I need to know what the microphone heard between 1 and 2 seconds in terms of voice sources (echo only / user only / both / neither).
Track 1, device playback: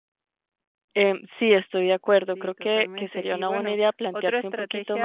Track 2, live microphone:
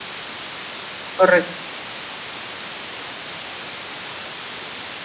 user only